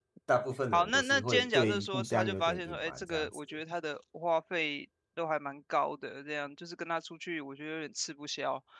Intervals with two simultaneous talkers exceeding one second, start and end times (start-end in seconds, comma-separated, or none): 0.7-3.4